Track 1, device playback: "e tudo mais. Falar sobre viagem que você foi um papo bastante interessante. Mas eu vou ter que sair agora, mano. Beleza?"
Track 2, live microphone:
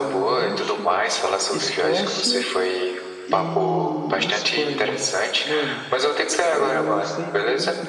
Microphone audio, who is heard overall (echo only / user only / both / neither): both